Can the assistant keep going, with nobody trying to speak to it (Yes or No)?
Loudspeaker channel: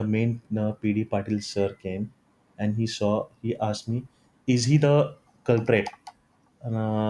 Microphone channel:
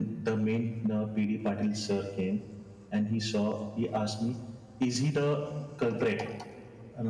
Yes